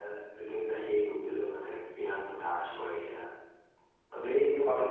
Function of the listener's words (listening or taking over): taking over